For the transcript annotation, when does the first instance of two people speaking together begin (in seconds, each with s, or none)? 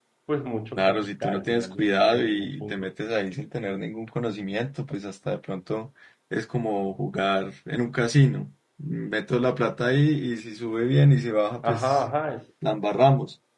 0.8 s